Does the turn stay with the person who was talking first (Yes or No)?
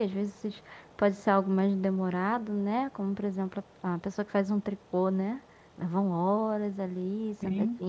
Yes